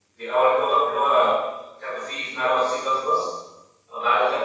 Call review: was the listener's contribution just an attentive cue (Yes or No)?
Yes